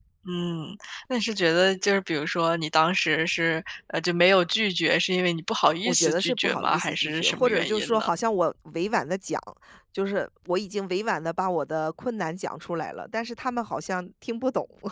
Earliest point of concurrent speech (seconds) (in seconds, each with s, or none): 5.8 s